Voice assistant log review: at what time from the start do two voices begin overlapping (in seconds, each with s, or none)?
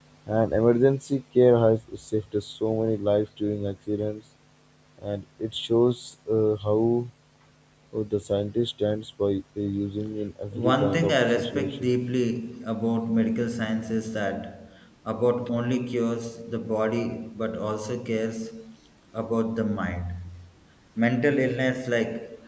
10.5 s